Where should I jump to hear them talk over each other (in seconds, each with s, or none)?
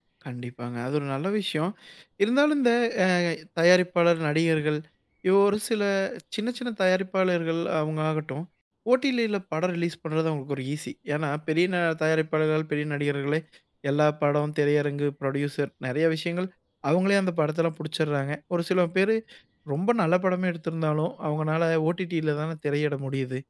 none